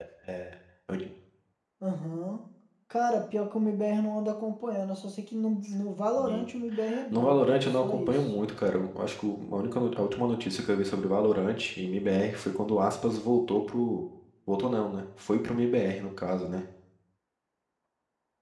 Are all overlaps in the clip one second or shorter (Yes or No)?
No